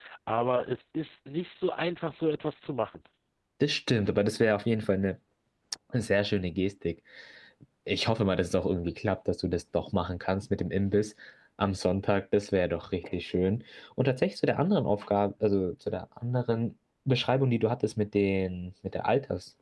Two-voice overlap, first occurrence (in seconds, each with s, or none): none